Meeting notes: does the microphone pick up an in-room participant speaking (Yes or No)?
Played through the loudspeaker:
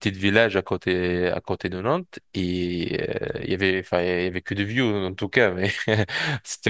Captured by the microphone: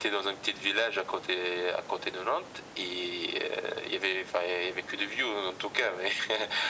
No